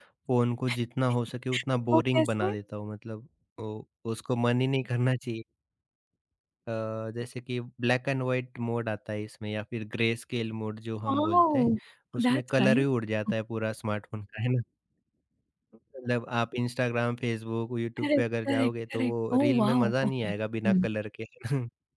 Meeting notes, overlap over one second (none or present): present